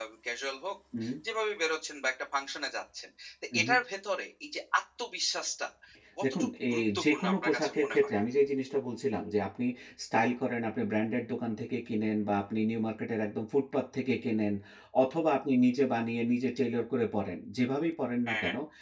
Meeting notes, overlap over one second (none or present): present